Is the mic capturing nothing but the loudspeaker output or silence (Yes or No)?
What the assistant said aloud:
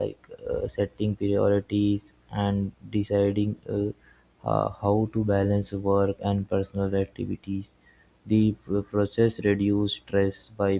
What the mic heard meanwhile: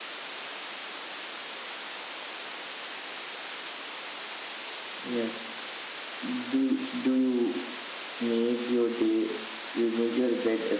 No